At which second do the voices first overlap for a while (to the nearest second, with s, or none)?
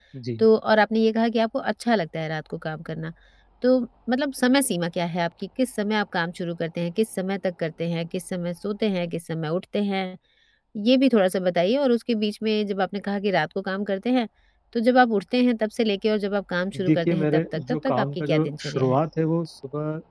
17 s